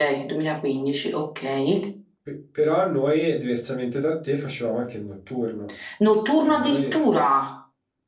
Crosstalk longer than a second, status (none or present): none